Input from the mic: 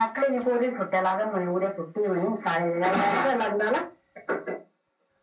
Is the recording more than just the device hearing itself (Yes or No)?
No